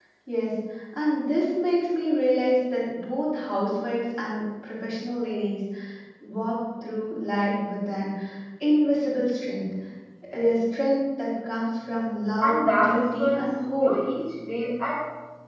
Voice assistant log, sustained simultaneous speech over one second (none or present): present